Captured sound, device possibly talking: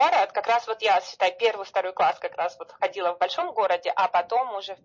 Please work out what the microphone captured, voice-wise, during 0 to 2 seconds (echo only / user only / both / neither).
echo only